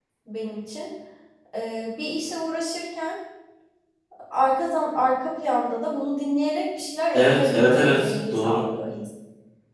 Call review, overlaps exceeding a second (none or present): present